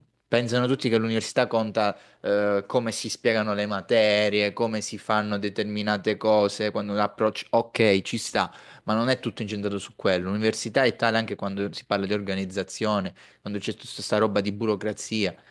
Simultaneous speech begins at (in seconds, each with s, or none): none